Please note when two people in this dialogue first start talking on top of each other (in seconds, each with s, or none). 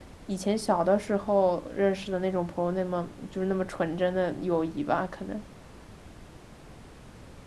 none